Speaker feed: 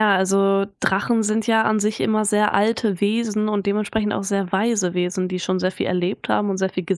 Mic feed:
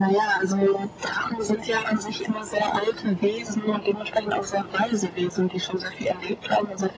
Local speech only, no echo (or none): none